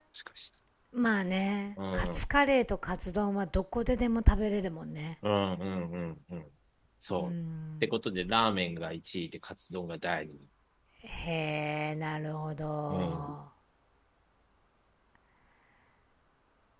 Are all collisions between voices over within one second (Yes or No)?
Yes